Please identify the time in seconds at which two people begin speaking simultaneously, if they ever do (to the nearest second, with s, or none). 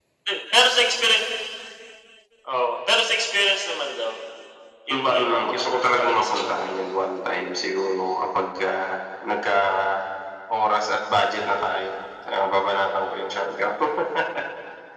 5 s